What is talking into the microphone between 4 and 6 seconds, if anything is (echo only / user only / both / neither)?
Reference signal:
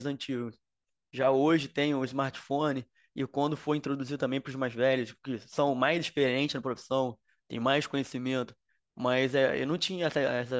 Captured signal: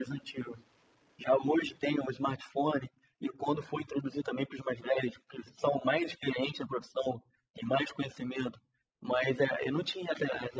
echo only